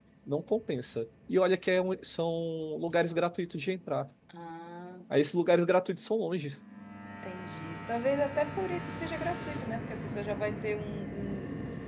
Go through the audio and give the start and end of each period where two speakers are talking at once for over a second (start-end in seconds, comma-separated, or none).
none